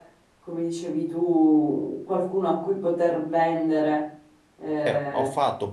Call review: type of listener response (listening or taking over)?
taking over